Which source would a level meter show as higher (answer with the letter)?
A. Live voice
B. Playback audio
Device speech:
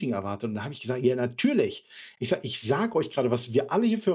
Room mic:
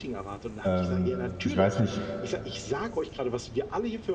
A